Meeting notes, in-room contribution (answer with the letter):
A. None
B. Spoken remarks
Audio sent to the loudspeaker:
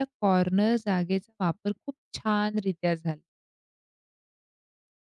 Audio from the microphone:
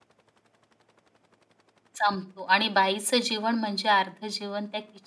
B